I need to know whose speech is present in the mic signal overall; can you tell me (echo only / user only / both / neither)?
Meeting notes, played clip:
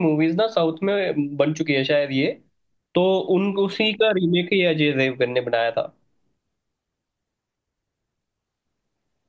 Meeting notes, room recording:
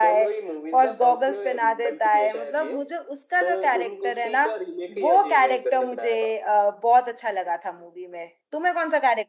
both